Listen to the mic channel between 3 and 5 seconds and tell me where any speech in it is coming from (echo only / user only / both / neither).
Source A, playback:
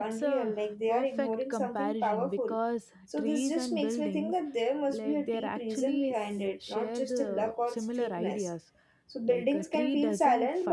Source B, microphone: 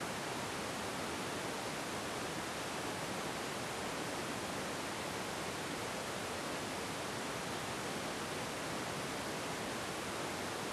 neither